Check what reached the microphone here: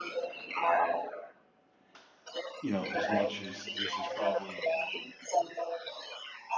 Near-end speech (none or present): present